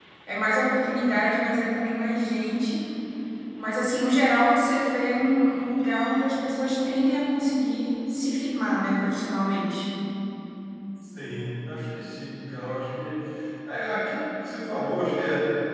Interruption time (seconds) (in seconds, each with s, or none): none